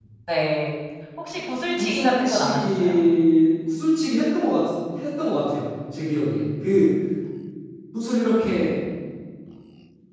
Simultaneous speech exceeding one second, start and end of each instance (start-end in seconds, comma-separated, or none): 1.8-3.0